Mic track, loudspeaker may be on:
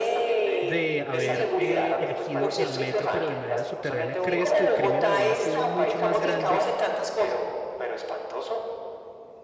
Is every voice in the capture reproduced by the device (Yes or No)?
No